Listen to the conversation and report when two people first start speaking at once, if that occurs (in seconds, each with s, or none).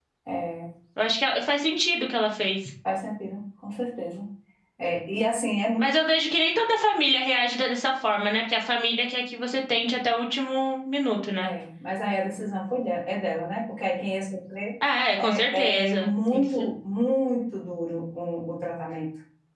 15.2 s